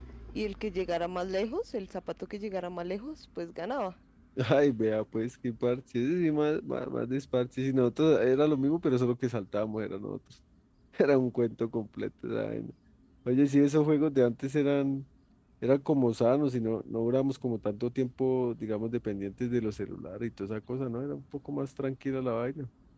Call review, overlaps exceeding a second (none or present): none